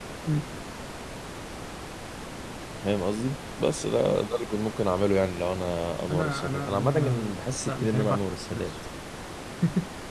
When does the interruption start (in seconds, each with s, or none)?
6.1 s